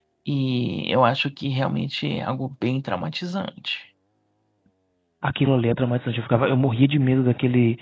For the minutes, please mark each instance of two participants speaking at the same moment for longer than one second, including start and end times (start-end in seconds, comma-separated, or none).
none